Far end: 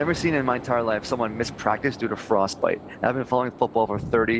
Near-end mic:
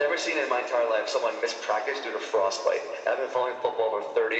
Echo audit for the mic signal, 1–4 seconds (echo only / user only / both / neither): echo only